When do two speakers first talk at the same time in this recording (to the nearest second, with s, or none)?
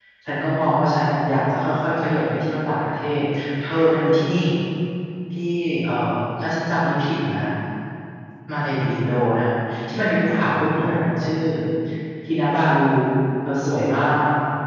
none